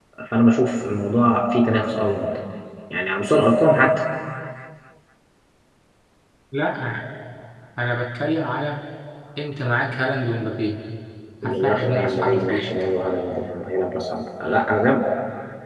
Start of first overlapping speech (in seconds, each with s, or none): 11.4 s